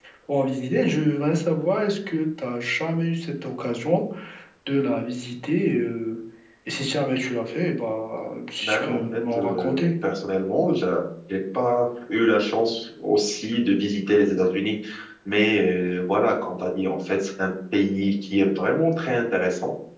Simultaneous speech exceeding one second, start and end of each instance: 8.6-9.9

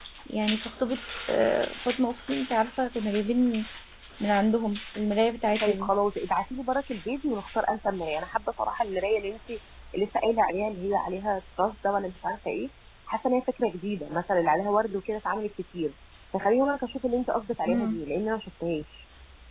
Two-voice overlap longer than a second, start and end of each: none

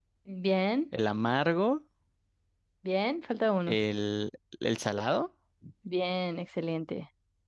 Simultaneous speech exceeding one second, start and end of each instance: none

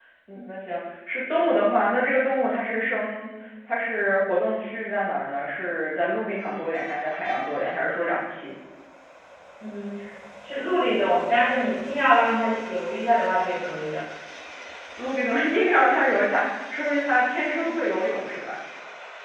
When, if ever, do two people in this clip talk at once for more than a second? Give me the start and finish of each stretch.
none

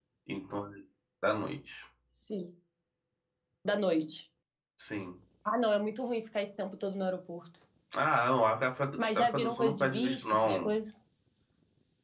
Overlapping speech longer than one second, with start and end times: 9.2-10.7

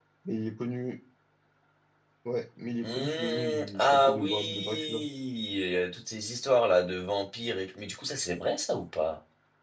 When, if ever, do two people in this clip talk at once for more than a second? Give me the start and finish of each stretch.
2.8-5.0

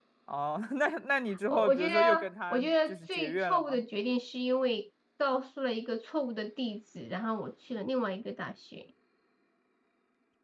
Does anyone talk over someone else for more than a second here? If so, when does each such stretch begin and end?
1.5-3.8

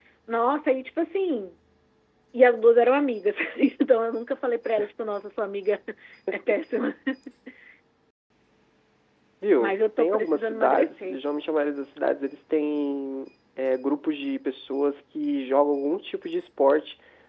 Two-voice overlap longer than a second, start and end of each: 9.6-11.2

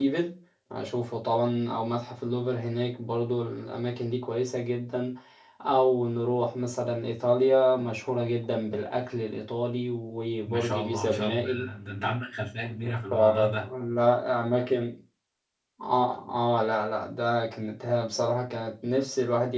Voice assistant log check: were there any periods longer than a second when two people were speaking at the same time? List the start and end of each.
10.4-11.7

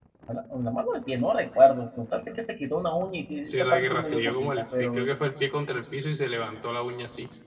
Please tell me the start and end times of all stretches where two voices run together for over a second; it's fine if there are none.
3.5-5.1

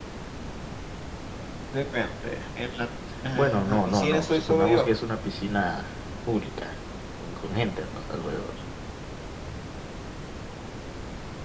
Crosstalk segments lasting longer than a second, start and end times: 3.3-4.8

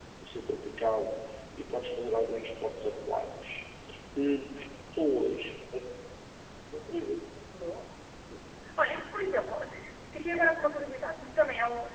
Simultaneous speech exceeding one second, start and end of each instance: none

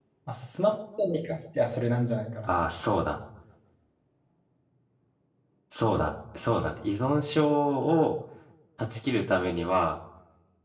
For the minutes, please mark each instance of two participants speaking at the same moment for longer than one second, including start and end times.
none

